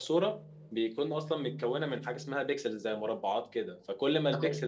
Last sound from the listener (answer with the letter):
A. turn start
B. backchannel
B